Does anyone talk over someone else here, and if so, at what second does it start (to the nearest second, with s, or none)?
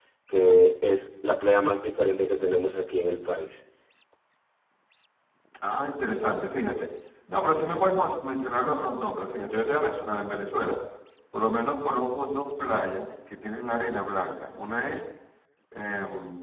none